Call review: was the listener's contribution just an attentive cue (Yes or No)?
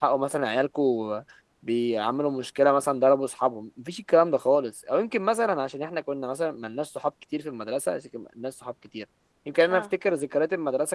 Yes